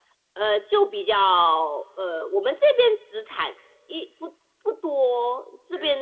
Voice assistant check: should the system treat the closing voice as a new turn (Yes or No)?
No